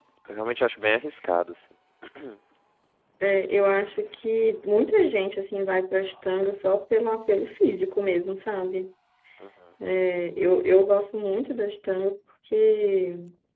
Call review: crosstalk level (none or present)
none